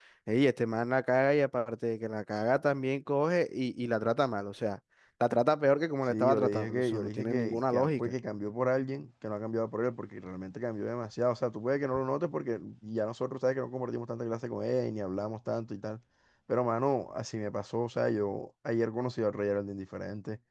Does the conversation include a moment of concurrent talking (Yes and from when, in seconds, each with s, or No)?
Yes, from 6.1 s